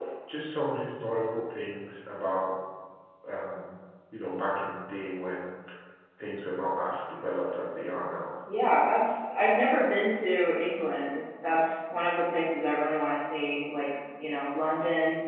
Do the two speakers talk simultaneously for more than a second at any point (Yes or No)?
No